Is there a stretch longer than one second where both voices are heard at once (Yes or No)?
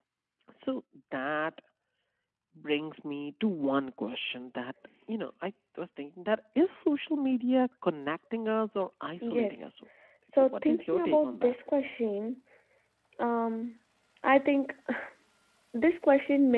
Yes